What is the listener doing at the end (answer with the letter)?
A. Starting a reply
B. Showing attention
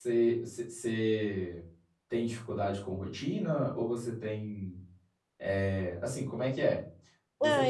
A